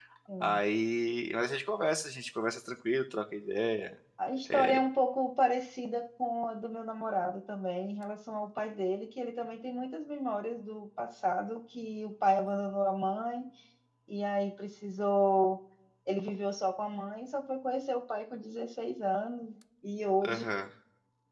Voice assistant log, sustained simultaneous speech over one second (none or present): none